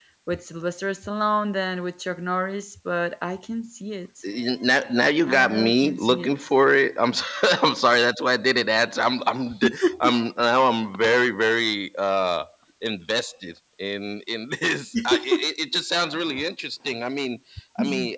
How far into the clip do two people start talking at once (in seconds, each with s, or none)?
5.2 s